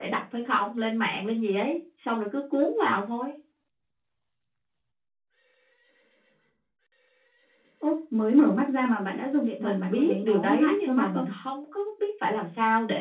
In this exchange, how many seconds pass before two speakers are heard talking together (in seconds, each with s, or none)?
9.6 s